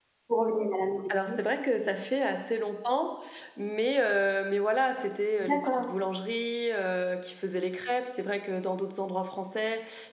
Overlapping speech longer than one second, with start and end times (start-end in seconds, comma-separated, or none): none